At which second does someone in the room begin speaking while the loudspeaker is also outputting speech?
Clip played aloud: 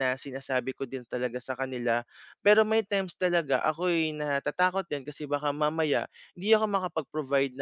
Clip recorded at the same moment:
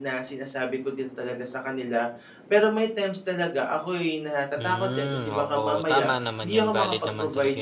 5 s

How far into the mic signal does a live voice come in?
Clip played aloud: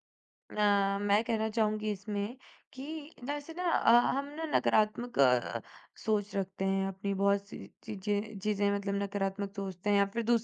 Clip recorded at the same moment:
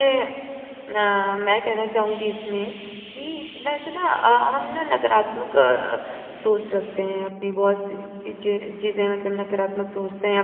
none

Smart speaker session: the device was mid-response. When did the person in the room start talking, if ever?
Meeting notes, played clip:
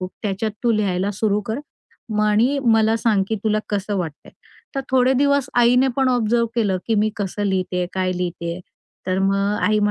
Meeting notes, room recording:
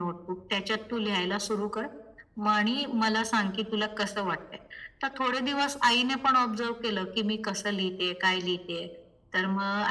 none

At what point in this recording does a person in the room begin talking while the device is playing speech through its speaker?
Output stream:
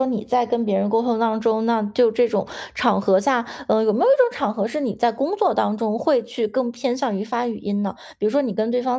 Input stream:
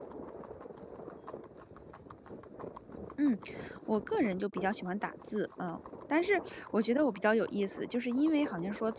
3 s

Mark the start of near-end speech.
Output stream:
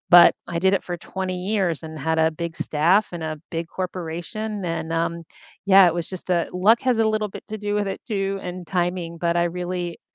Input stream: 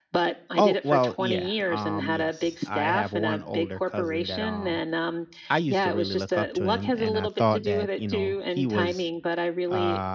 1 s

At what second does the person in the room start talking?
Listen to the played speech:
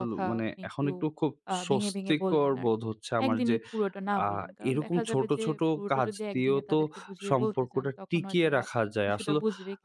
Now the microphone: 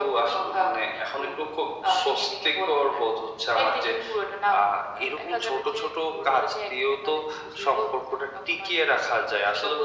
none

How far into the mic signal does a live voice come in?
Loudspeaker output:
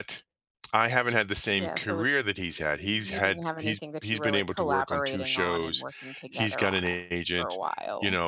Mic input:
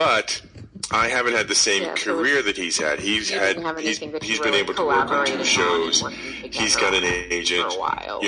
5 s

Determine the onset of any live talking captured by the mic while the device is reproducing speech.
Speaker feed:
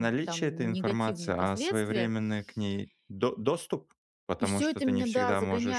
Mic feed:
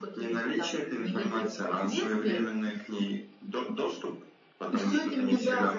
none

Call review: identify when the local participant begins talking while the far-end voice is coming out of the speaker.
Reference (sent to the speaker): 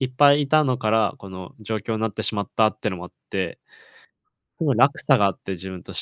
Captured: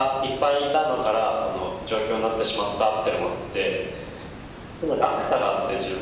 none

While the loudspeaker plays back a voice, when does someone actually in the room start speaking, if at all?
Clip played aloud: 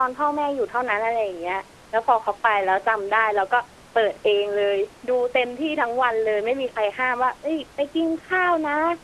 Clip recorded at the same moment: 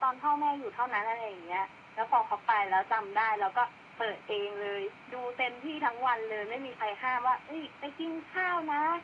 none

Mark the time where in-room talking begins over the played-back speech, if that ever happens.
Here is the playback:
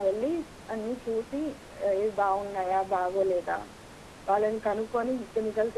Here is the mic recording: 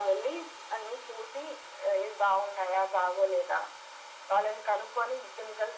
none

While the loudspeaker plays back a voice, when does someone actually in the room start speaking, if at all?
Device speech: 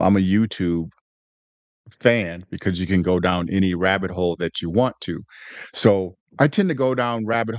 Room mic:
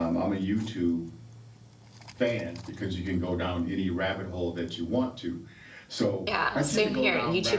6 s

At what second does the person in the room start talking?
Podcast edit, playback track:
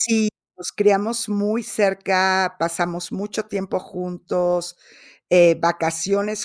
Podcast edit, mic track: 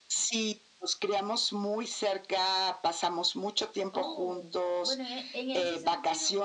4 s

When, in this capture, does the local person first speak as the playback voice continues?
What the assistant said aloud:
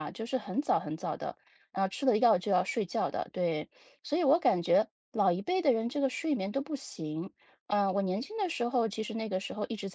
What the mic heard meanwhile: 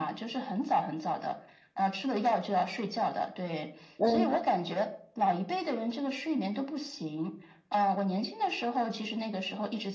4 s

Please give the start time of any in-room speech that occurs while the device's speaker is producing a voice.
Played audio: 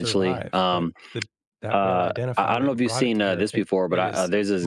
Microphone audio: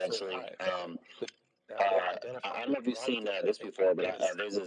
none

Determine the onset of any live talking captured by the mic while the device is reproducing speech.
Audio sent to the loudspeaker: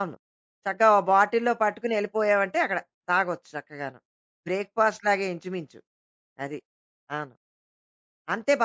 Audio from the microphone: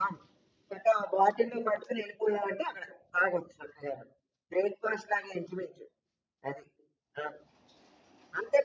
none

